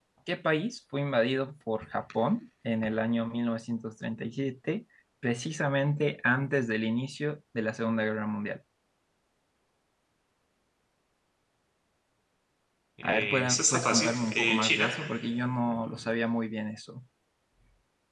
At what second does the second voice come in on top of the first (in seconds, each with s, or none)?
13.0 s